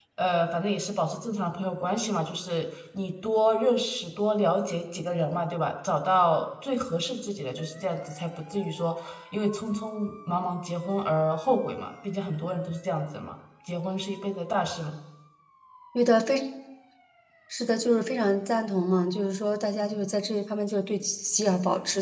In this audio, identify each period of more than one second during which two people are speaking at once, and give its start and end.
none

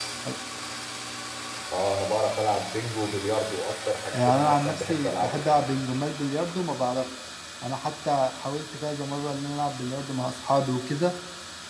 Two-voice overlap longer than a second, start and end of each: 4.2-5.8

